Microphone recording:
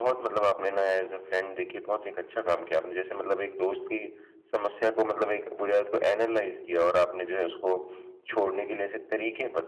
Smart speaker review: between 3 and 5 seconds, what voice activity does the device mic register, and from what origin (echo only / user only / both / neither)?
user only